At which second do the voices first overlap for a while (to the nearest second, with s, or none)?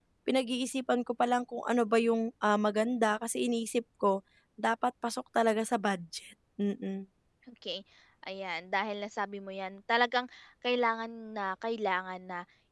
none